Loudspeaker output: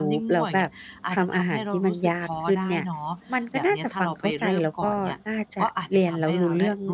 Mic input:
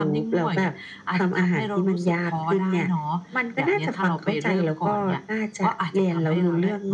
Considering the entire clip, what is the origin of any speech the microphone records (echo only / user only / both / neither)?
echo only